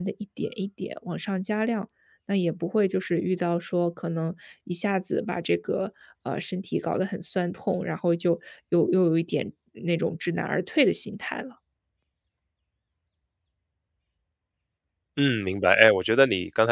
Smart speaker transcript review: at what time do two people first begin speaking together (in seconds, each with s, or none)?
none